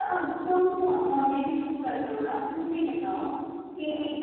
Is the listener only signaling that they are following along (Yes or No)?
Yes